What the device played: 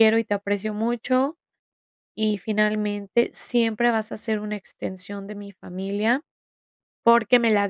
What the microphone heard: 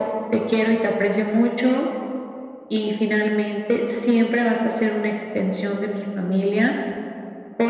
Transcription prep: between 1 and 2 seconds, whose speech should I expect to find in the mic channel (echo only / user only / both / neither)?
echo only